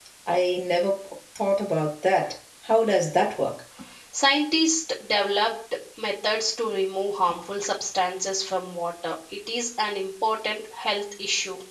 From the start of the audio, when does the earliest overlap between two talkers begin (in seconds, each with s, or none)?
none